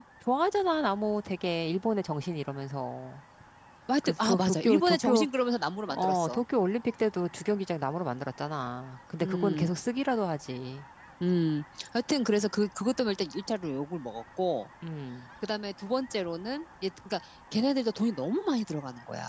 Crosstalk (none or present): present